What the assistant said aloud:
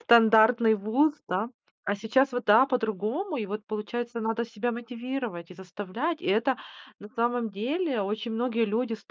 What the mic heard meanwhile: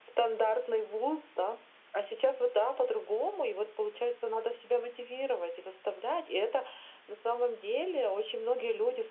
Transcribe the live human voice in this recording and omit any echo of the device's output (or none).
none